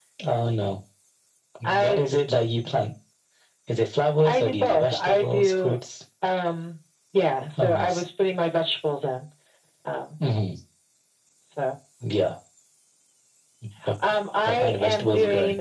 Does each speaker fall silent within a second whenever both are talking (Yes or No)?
No